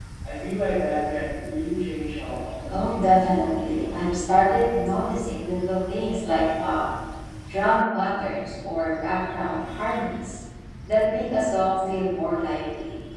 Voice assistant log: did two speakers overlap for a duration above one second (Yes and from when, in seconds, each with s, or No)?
Yes, from 2.7 s